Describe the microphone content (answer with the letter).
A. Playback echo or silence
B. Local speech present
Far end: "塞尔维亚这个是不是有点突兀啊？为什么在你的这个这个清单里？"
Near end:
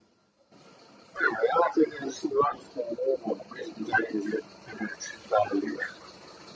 A